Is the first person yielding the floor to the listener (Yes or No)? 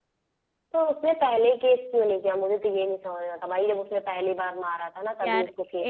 Yes